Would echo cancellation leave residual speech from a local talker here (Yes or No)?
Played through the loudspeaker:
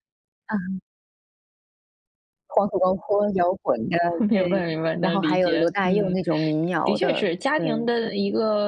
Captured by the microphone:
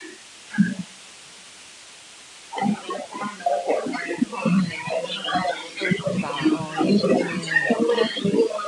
Yes